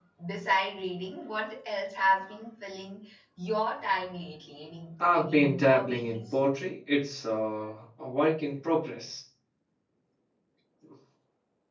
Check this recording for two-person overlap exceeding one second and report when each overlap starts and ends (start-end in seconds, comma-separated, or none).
5.1-6.4